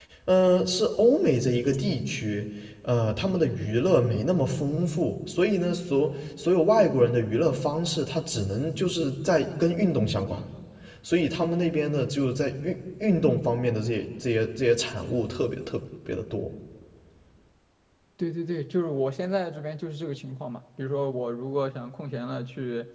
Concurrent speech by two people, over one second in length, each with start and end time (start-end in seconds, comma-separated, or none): none